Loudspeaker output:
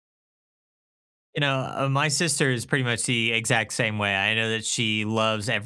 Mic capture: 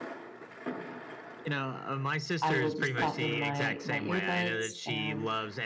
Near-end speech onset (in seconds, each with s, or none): 2.4 s